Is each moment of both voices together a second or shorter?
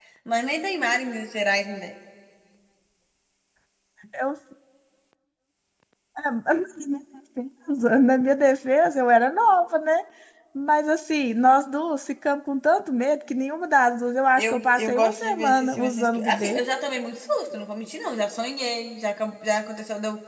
No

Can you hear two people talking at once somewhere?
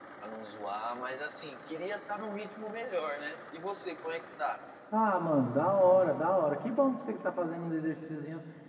No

